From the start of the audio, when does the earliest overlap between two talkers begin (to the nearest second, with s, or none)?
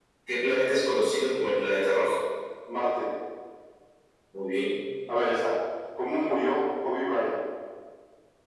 none